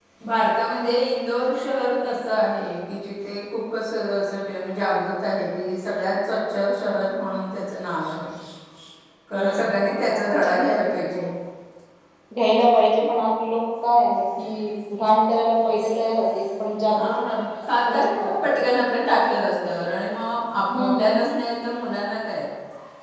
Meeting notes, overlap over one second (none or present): present